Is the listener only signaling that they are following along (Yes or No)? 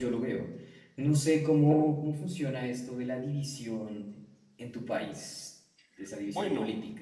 No